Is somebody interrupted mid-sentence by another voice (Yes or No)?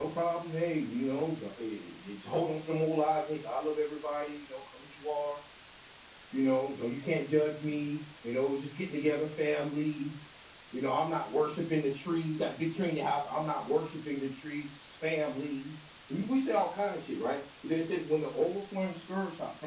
No